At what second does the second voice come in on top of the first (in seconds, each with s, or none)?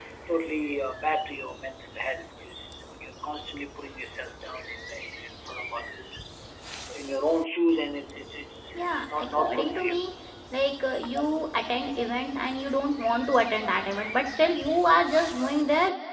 8.8 s